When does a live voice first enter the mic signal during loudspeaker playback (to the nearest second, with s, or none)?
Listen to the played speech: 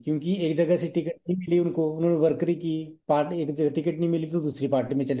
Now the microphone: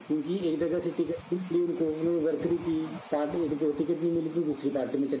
none